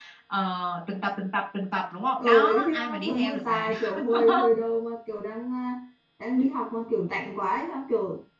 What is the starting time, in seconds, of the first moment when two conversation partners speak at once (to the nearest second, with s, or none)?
2 s